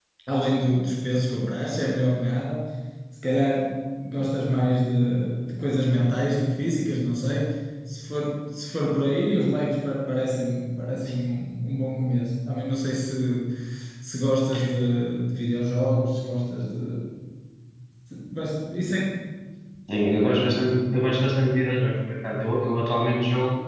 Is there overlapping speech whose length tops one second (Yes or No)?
No